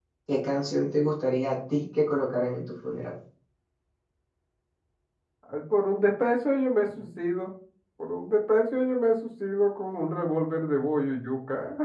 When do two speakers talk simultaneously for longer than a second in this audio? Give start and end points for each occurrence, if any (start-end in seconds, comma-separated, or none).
none